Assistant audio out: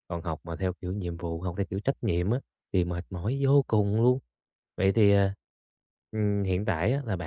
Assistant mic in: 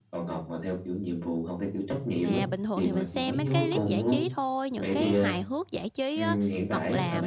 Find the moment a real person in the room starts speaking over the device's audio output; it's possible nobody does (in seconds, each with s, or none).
2.2 s